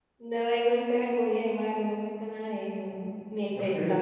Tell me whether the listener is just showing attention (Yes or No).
Yes